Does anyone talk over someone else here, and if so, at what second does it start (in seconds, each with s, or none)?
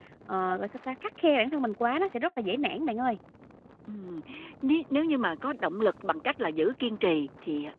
none